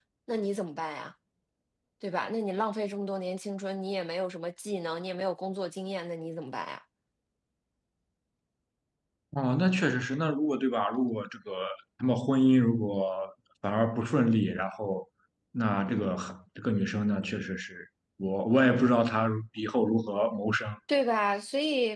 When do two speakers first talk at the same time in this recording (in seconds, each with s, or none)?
none